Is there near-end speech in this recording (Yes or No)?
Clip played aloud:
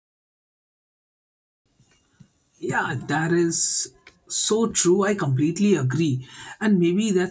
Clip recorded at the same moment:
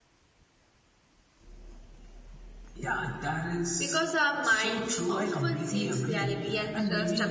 Yes